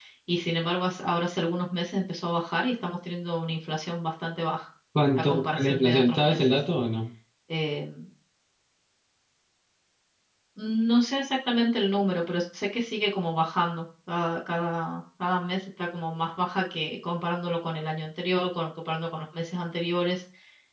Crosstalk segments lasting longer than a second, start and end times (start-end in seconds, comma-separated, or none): 5.2-6.4